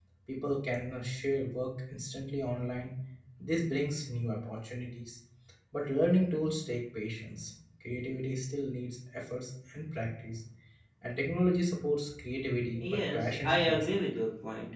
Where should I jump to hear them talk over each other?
12.8 s

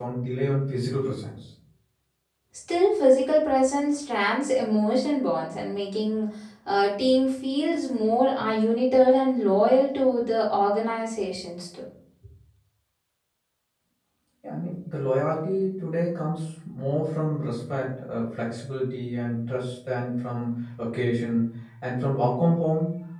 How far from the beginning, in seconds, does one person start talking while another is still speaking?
none

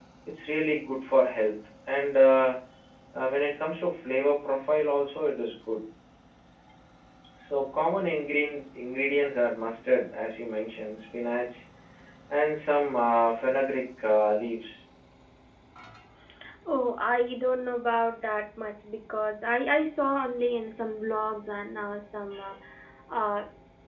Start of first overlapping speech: none

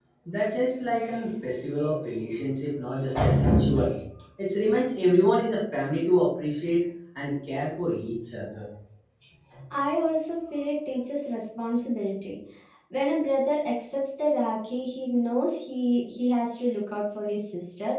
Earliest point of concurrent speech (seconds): none

